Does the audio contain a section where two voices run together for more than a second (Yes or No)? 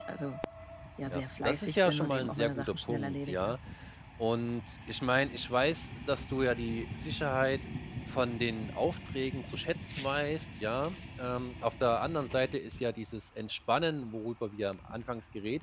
Yes